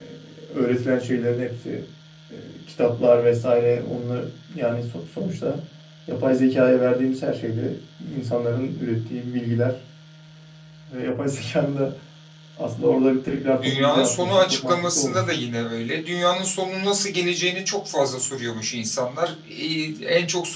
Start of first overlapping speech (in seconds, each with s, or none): 13.4 s